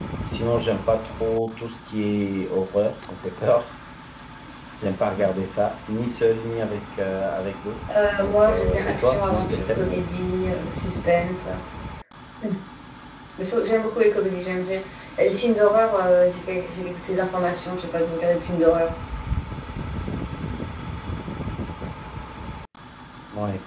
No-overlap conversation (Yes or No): No